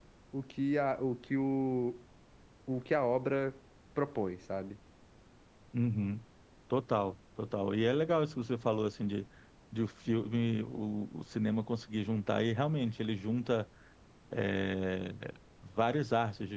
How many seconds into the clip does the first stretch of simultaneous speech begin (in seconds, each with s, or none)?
none